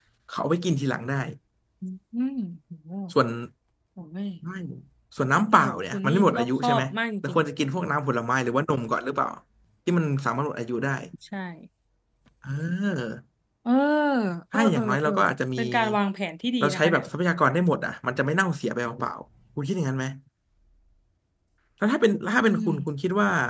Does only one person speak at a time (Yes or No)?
No